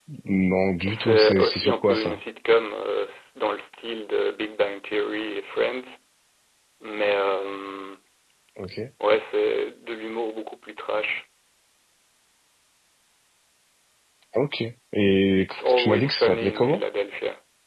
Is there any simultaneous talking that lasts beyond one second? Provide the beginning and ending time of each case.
0.9-2.2, 15.4-16.8

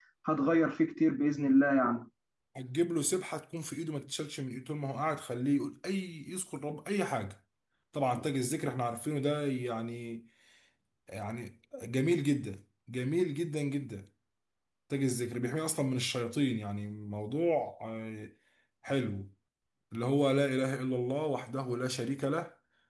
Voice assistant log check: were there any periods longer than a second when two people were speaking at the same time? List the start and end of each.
none

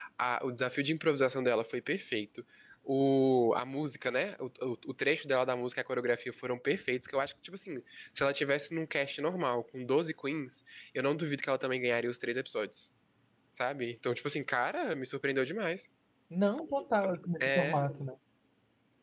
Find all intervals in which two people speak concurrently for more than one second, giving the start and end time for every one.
none

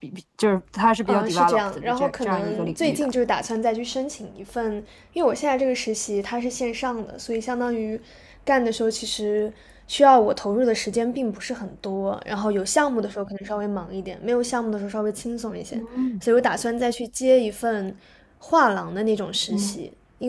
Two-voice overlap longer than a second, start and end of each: 1.1-3.1

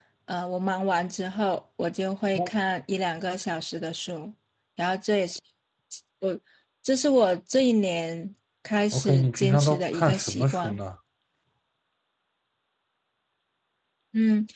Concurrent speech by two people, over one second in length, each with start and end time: 8.9-10.8

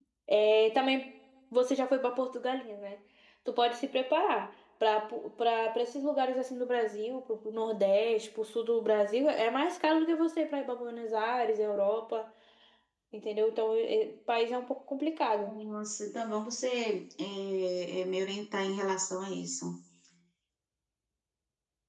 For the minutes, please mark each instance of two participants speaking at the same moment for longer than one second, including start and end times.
none

